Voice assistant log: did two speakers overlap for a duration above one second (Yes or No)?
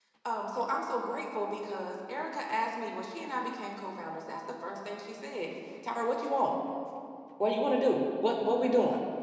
No